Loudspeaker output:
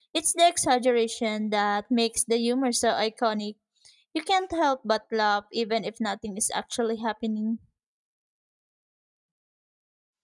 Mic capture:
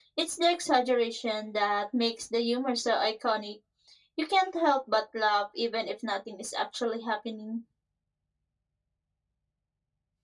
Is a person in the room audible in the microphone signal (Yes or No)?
No